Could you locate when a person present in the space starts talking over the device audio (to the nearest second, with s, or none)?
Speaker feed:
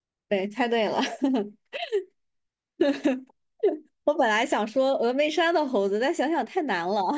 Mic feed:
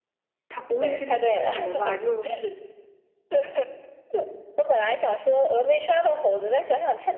0 s